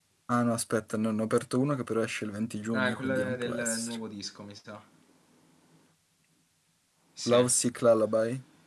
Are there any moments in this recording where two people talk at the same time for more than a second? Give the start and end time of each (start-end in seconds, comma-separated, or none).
2.7-4.0